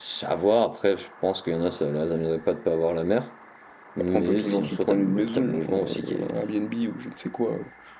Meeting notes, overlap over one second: present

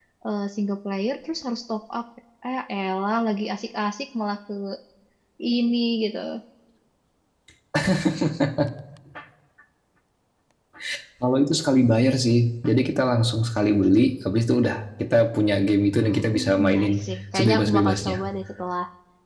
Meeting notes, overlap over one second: present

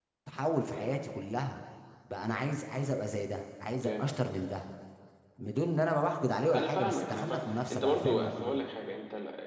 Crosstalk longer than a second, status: present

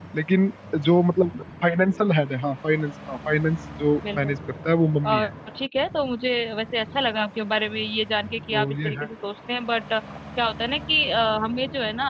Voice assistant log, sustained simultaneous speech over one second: none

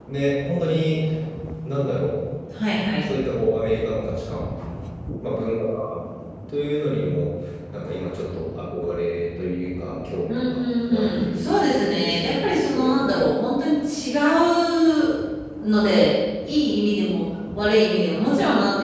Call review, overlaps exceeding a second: present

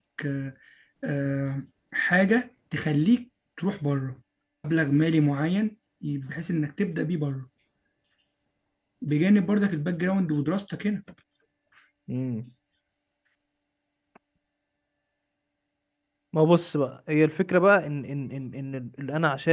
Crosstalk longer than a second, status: none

